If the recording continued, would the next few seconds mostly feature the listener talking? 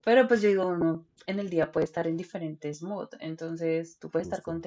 No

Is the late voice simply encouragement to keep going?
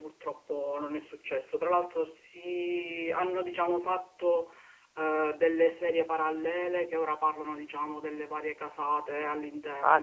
No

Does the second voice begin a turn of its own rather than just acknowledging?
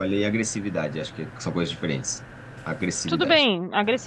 Yes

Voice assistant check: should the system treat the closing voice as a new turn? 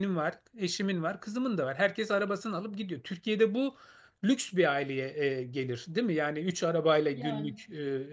No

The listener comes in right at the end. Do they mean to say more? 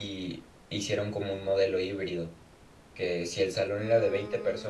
No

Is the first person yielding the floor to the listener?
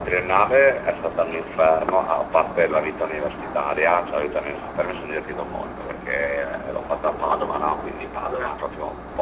No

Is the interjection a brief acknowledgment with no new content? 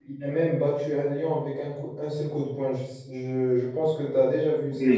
No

